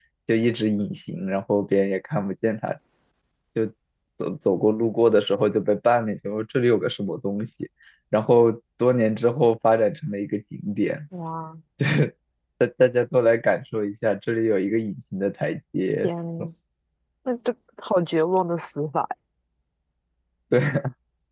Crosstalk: none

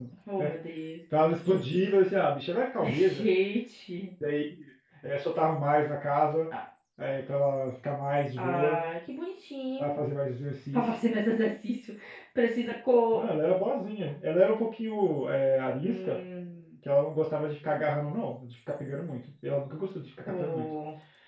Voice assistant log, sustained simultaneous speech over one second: none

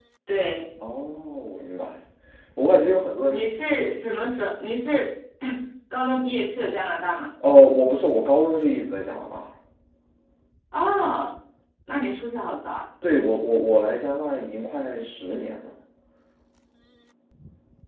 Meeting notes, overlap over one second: none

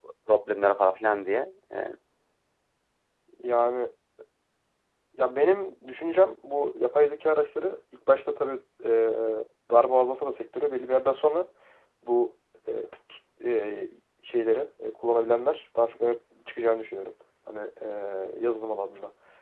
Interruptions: none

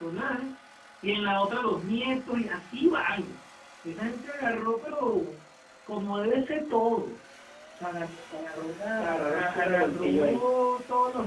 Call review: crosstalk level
present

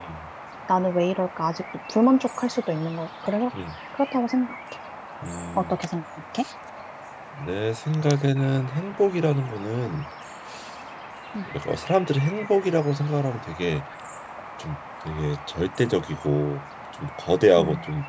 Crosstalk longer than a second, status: none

